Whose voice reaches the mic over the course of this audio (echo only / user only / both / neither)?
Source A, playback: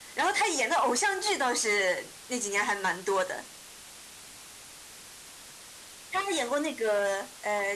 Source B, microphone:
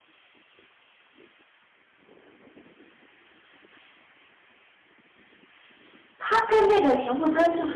user only